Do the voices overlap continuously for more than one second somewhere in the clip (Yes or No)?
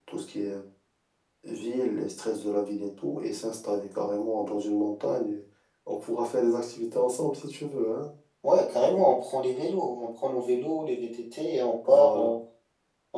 No